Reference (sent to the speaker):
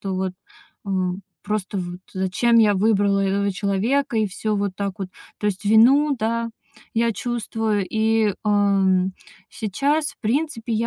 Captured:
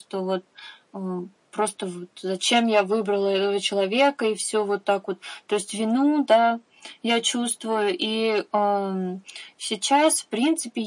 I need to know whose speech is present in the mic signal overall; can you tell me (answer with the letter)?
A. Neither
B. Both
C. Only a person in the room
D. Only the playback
D